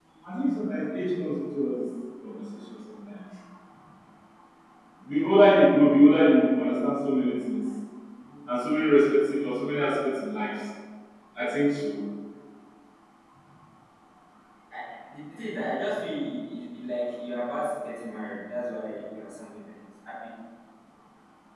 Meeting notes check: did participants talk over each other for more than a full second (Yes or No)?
No